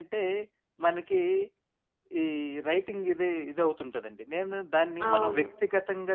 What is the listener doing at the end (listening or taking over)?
listening